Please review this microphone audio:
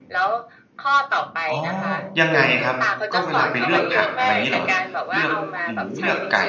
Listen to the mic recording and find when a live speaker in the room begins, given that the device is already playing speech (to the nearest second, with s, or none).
2 s